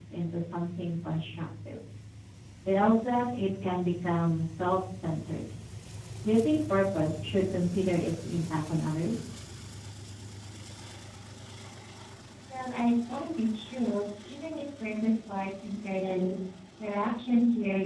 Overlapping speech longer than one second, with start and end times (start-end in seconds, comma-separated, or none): none